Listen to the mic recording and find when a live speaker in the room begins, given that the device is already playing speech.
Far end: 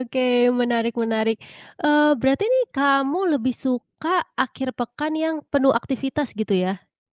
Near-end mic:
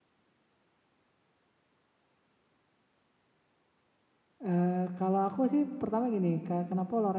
4.4 s

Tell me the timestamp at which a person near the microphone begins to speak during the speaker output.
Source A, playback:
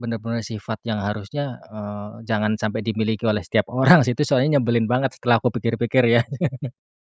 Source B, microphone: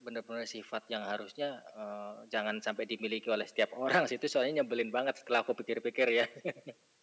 none

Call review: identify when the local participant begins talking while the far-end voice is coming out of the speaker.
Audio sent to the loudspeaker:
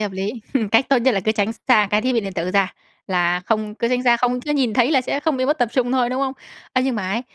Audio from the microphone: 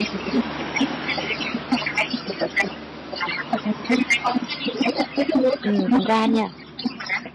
5.6 s

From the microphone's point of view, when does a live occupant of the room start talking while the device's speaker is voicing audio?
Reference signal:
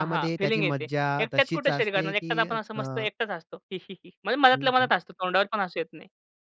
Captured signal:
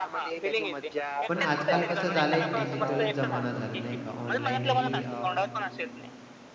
1.3 s

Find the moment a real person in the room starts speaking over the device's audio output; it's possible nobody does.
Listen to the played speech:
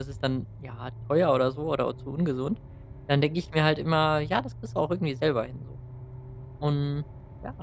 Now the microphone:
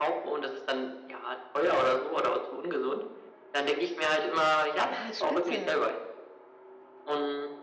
4.9 s

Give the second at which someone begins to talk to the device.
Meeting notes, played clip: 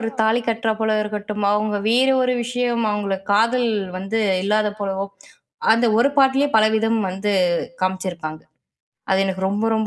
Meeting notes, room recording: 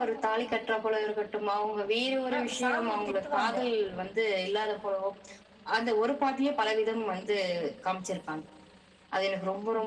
2.4 s

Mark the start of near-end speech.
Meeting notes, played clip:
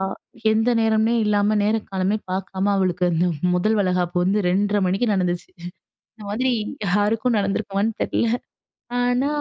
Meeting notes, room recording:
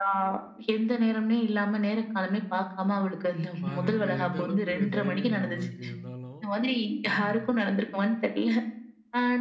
3.6 s

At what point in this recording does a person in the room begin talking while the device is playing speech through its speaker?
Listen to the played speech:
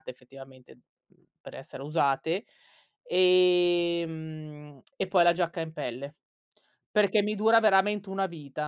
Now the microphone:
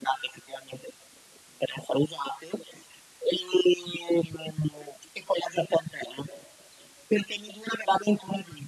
none

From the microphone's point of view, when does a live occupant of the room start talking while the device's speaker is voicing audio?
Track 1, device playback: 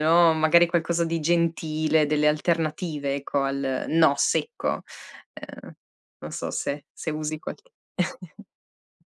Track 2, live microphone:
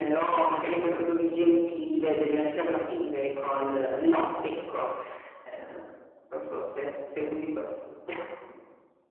none

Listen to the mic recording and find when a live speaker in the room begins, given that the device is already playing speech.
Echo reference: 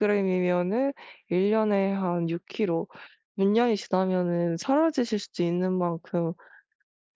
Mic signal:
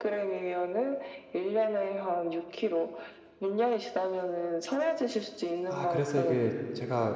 5.7 s

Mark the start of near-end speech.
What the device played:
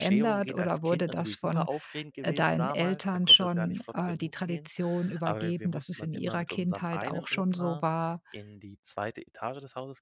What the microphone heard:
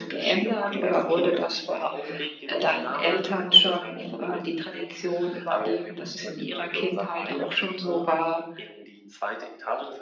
none

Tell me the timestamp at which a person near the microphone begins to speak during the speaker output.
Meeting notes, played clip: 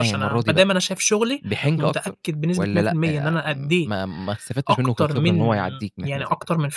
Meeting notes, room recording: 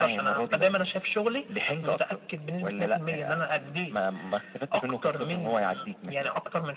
none

